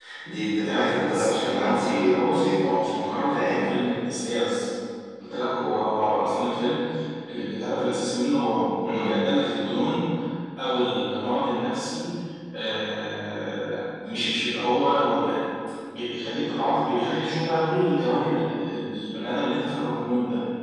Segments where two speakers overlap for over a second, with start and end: 0.6-2.7

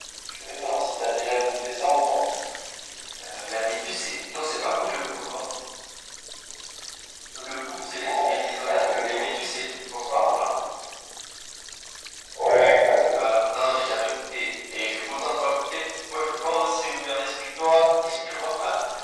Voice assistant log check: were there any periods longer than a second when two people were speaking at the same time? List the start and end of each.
7.9-9.2

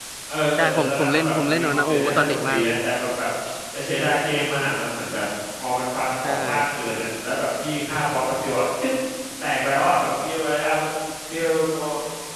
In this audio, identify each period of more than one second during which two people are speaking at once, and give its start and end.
0.6-2.7

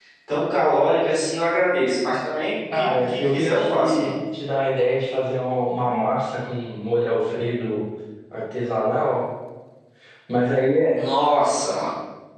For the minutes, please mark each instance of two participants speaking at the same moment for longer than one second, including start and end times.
2.7-4.2

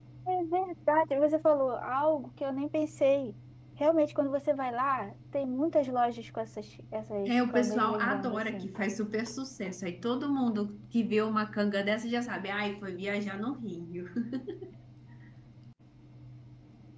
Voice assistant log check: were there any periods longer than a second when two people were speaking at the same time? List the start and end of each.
7.2-8.7

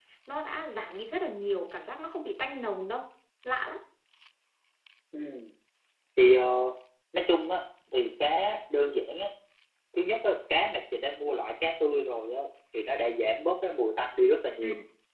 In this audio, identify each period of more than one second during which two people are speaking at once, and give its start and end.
none

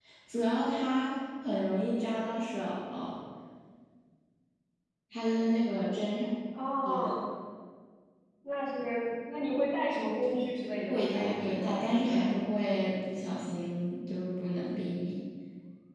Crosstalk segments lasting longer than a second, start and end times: 10.9-12.2

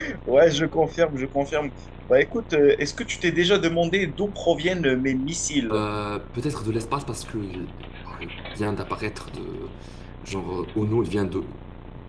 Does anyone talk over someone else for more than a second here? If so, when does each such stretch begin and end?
none

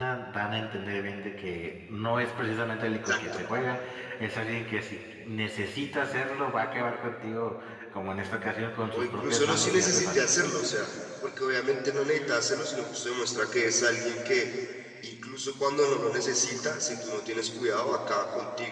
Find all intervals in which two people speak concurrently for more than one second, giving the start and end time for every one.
8.9-10.3

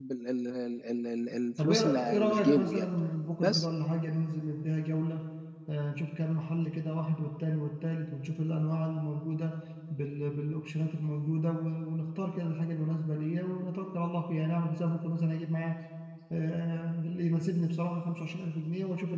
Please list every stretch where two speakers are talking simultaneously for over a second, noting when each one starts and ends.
1.6-2.9

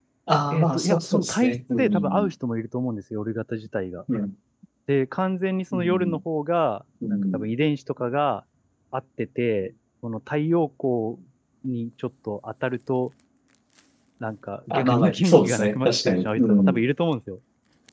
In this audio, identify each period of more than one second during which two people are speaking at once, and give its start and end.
0.5-2.3, 14.7-16.8

